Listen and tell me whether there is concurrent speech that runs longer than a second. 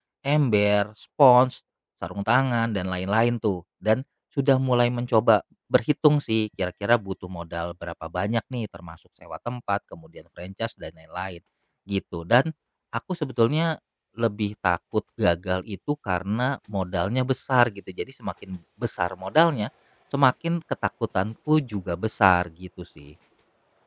No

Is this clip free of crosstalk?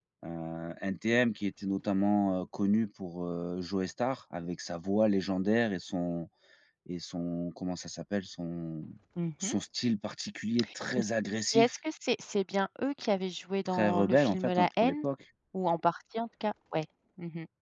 No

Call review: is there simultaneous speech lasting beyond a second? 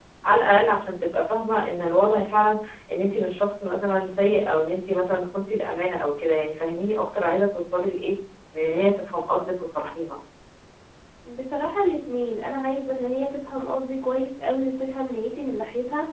No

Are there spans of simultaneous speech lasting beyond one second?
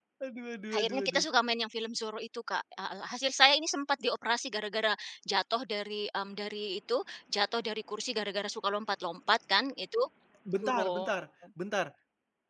No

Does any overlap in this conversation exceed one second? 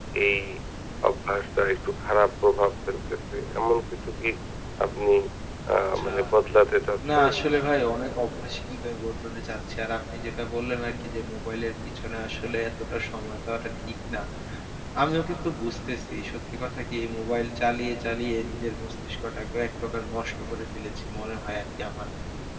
No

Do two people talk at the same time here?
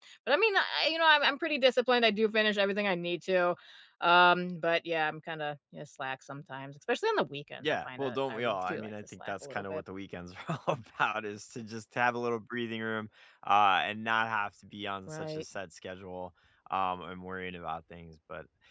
Yes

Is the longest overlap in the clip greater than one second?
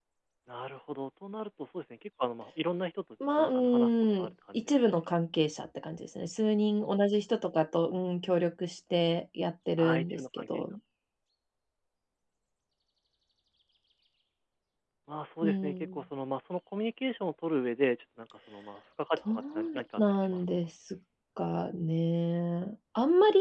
Yes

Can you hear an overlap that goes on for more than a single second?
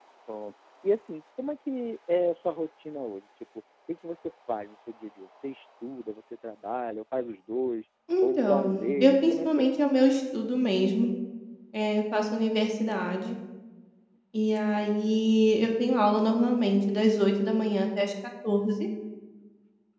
Yes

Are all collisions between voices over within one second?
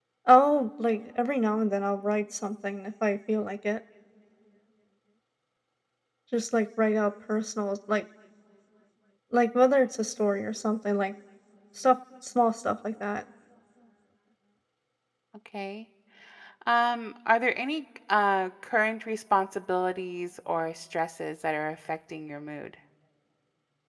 Yes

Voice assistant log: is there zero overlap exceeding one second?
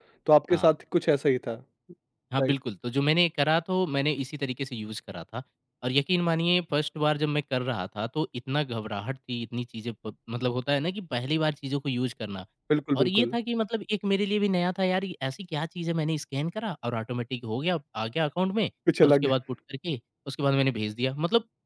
Yes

